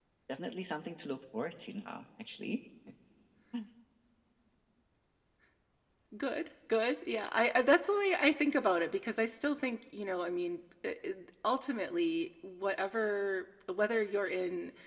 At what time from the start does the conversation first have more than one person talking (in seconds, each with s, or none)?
none